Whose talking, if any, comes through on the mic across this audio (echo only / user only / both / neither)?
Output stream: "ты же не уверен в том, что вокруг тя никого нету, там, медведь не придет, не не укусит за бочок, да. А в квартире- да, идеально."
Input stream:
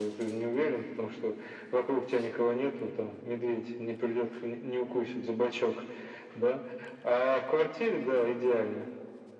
echo only